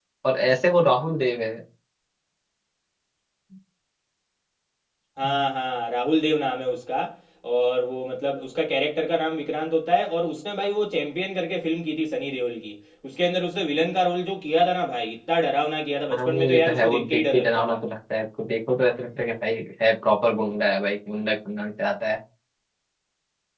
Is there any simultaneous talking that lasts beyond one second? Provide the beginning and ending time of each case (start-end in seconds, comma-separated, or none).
16.1-17.8